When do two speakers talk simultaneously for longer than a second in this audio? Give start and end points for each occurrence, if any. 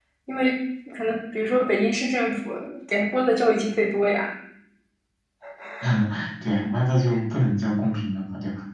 none

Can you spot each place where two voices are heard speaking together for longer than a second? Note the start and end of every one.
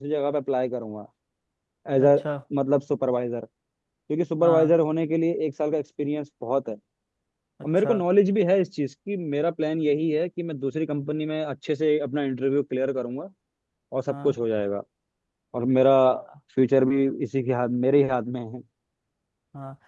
none

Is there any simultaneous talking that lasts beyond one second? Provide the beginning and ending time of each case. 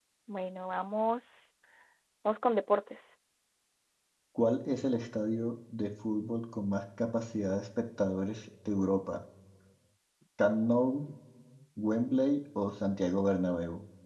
none

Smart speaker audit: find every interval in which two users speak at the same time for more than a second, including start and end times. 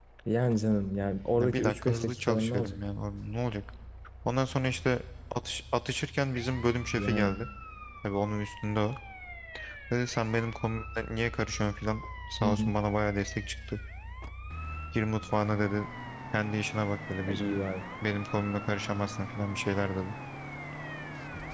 1.4-2.8

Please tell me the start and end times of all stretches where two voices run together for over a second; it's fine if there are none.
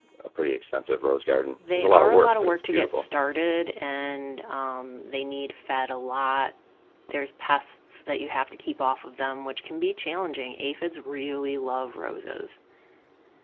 1.7-3.0

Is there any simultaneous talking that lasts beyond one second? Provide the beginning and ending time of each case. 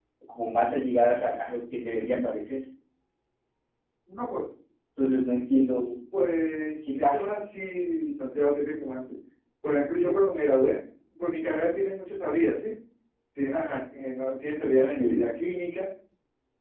none

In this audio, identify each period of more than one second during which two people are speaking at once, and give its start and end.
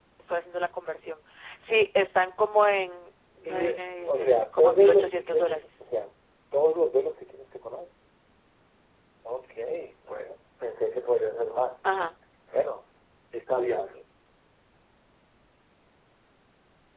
3.4-5.7

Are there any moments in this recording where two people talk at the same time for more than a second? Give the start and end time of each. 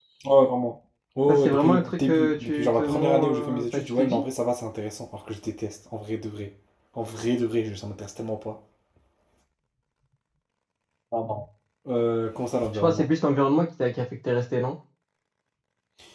1.3-4.2

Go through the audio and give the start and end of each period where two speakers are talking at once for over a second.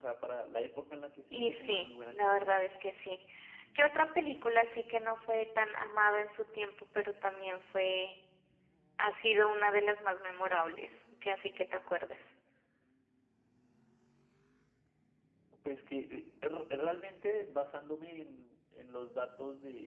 1.3-2.6

